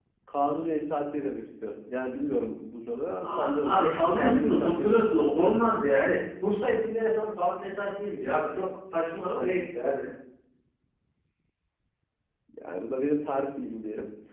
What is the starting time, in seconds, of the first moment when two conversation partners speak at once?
3 s

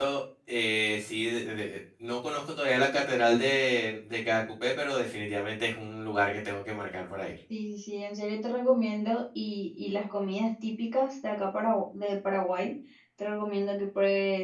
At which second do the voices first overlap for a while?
none

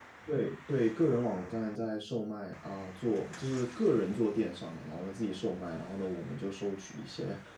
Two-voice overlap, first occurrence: none

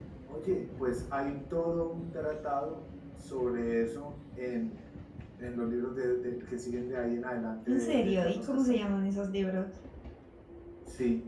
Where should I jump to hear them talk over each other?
8 s

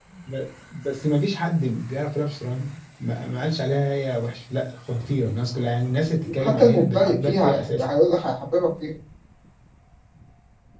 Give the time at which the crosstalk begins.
6 s

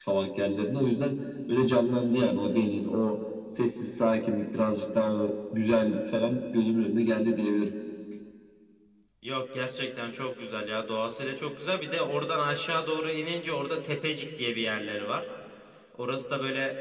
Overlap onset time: none

